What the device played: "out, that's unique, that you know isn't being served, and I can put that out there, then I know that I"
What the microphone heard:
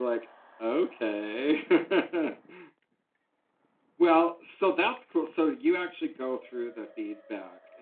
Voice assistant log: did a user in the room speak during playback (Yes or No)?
Yes